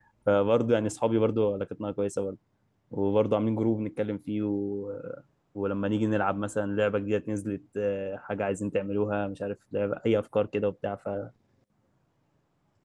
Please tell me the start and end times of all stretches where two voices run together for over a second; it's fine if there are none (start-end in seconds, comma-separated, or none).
none